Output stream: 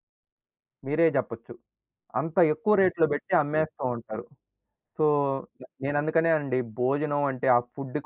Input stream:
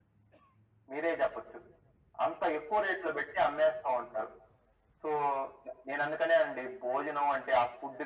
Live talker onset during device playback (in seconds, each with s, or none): none